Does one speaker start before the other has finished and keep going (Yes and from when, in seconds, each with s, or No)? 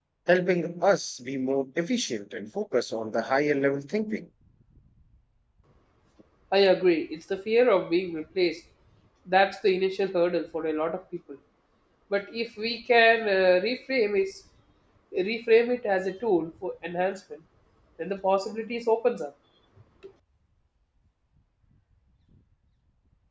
No